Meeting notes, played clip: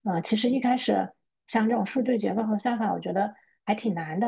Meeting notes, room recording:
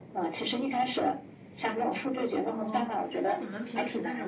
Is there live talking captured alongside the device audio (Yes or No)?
Yes